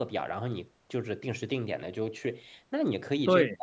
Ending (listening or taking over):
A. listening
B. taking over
A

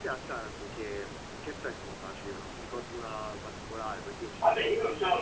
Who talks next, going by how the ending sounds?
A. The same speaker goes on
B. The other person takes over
B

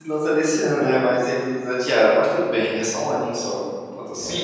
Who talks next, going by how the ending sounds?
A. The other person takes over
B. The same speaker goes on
A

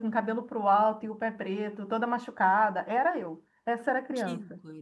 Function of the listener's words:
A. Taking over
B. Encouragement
A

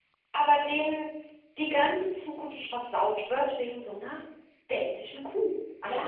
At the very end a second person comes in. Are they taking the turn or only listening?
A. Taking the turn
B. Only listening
A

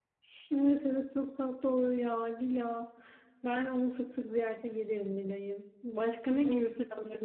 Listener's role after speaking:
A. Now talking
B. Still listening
B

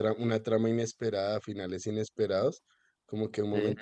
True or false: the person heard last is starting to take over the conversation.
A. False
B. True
A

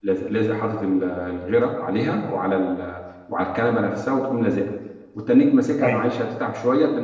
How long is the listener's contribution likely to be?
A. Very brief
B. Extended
A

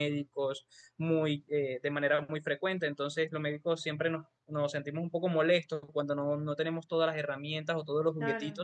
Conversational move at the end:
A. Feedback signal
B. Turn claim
A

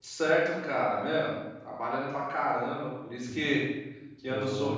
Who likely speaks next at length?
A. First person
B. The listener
A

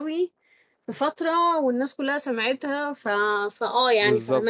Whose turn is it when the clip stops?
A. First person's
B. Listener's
B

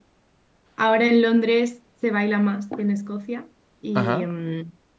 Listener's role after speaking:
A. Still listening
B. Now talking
A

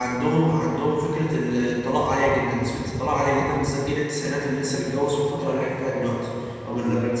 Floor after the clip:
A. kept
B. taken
A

